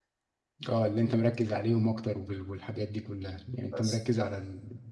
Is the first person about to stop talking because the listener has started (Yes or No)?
No